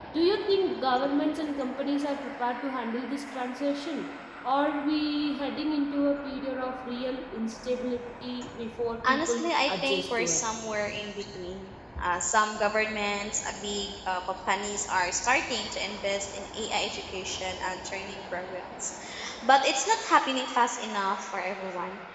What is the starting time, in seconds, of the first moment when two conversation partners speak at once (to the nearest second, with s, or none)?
9 s